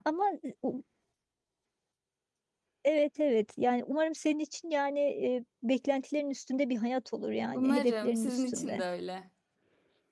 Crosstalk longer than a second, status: present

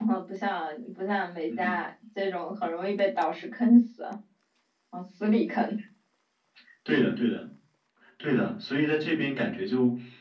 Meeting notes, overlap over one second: none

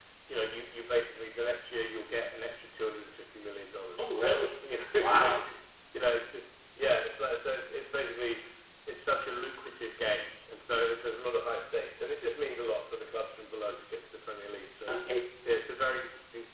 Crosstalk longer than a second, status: none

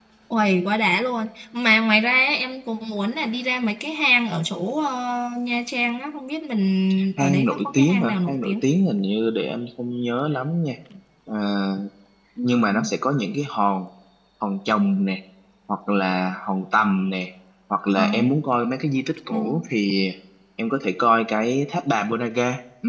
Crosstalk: present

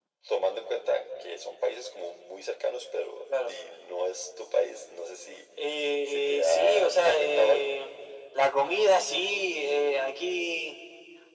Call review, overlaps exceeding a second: present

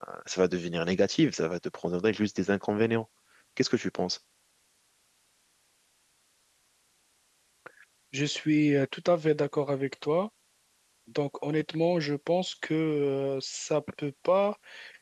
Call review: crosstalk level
none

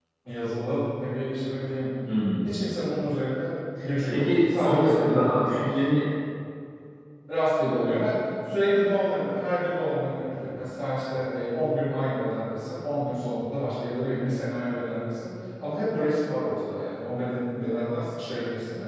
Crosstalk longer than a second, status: present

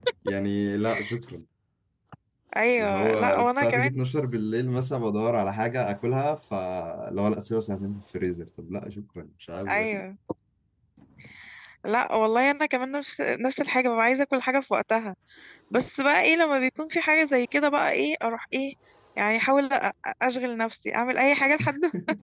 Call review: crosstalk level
present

